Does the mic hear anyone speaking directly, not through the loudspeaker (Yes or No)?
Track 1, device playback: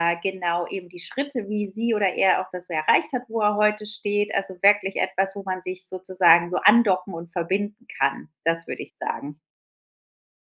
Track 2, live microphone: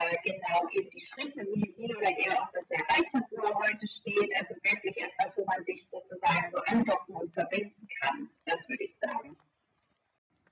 No